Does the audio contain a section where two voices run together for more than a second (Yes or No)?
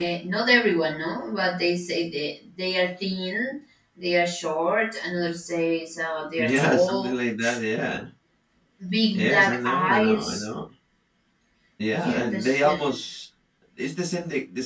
Yes